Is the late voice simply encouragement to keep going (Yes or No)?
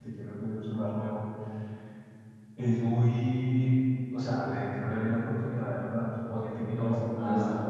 No